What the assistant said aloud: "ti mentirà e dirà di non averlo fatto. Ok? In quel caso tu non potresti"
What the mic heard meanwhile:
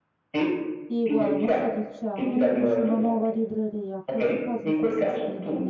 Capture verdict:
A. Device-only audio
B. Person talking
B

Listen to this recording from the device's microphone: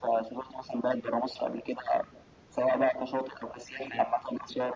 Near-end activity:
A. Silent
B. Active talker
A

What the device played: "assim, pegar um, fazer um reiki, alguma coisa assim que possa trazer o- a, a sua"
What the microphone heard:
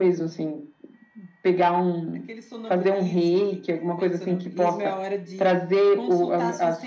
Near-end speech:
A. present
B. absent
A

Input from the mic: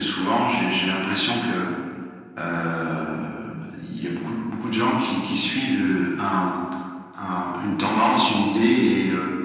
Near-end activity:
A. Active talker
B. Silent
B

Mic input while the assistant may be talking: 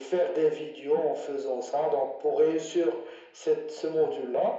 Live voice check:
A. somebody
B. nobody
B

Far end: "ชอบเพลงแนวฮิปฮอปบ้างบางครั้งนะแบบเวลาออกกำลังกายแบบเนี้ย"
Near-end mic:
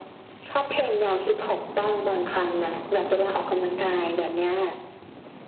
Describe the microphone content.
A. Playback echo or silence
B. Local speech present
A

